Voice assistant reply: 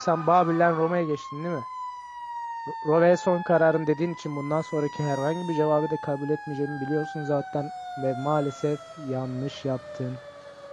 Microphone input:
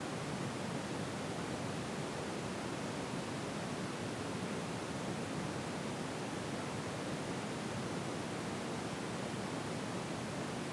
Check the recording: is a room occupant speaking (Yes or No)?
No